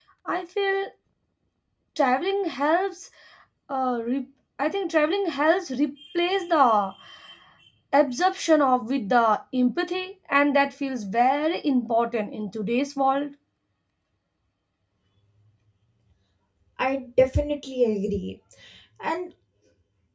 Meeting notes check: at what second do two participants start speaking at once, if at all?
none

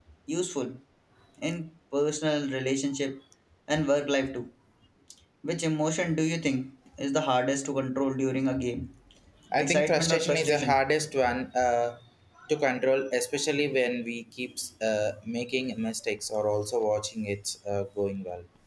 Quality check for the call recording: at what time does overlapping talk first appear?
9.6 s

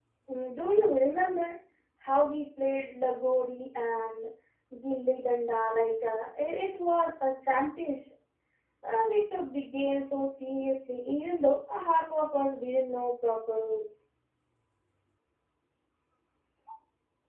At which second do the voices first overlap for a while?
none

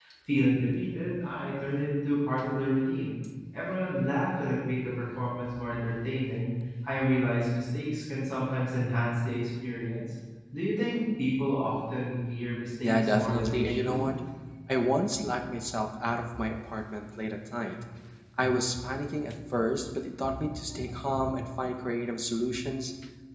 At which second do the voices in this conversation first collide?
12.8 s

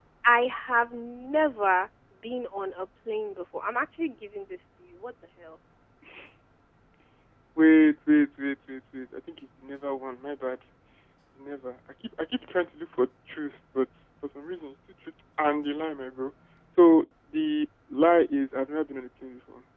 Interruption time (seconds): none

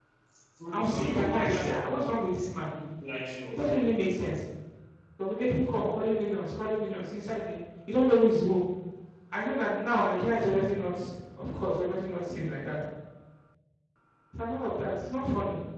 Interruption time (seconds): 0.7 s

